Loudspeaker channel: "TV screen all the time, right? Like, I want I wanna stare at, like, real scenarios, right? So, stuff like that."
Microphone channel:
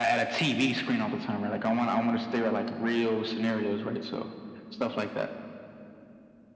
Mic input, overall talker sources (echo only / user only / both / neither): echo only